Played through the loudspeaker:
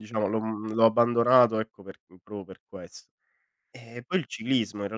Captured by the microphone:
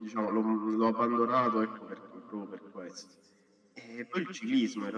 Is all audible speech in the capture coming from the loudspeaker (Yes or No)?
Yes